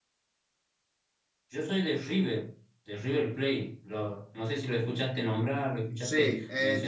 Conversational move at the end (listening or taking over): taking over